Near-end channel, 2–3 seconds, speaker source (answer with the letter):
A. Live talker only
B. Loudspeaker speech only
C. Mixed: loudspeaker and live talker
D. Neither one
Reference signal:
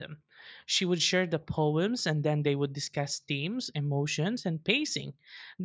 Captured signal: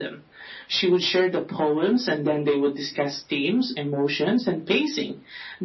B